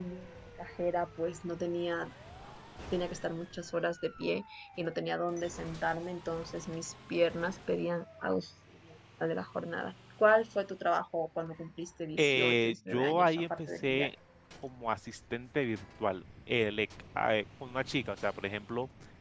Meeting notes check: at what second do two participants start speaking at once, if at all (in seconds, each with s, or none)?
12.2 s